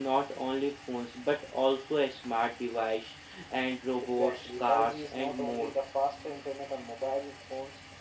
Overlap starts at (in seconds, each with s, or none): 4.0 s